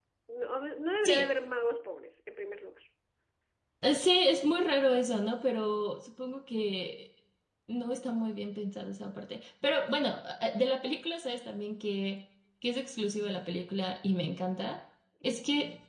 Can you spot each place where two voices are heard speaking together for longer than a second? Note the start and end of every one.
none

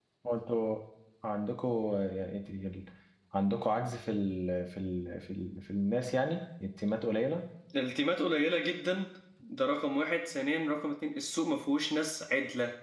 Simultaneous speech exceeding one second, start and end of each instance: none

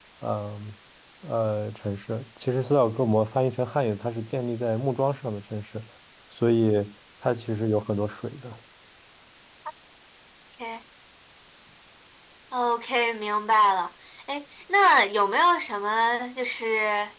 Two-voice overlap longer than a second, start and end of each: none

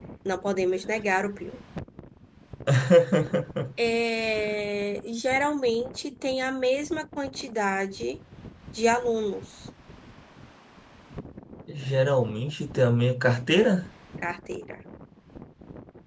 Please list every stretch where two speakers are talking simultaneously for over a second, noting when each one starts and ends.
none

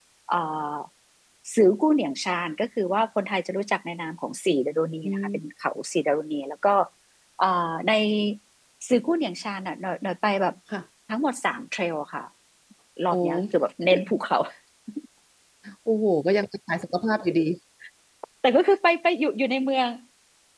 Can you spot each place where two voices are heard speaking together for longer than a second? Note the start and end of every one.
none

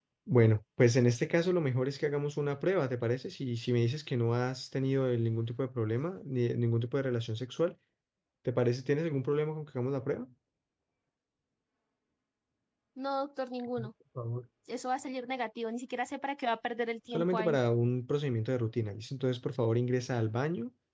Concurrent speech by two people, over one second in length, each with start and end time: none

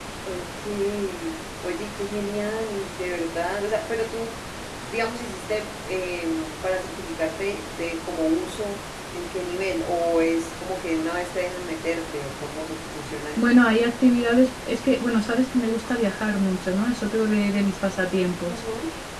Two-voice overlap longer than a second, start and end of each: none

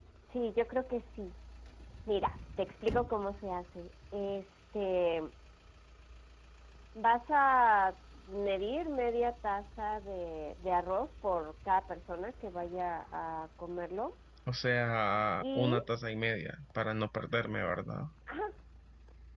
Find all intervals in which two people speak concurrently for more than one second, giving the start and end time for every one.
none

